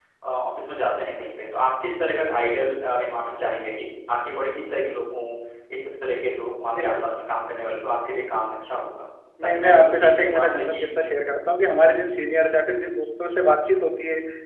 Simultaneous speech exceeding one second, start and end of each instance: 9.5-10.9

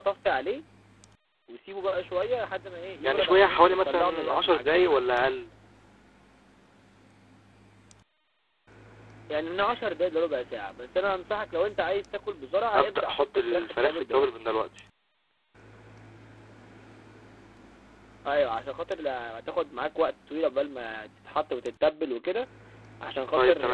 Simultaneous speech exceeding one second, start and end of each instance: 3.0-5.0, 12.8-14.3

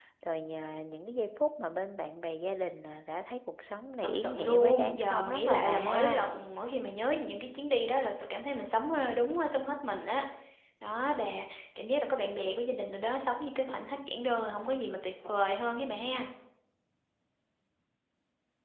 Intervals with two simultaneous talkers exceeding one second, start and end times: 4.2-6.3

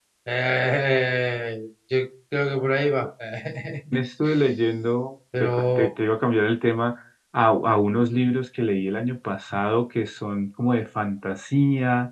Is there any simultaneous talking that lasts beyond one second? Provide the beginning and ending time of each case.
none

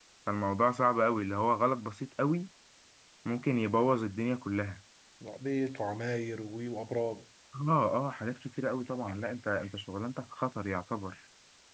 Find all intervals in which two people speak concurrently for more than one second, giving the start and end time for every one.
none

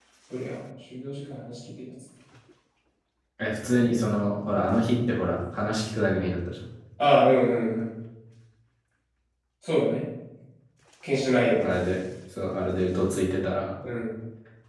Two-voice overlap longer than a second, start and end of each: none

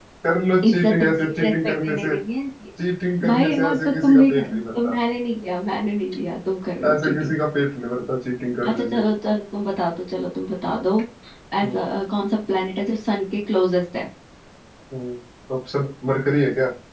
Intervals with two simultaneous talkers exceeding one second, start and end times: 0.6-2.1, 3.2-4.9

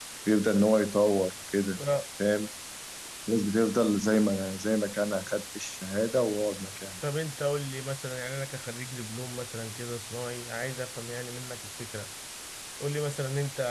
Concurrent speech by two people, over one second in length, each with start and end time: none

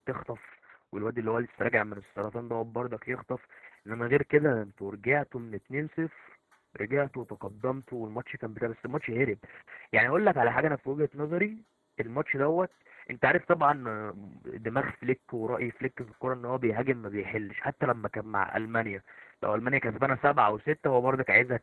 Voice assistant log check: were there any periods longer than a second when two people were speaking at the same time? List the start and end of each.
none

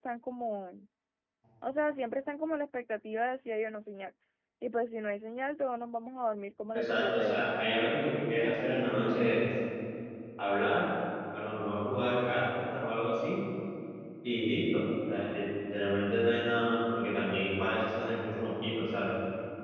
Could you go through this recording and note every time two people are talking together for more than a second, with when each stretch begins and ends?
6.7-8.4

